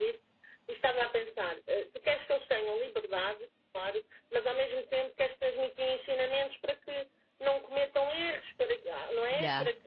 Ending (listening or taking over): listening